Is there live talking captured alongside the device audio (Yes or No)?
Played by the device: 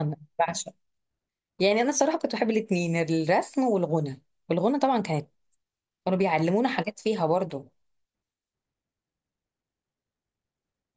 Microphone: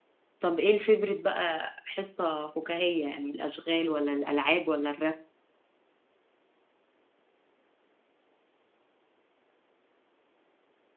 Yes